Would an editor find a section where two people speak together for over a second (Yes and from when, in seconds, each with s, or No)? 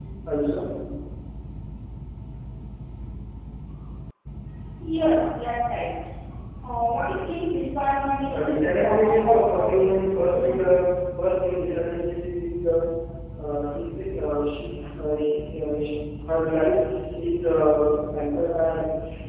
Yes, from 8.3 s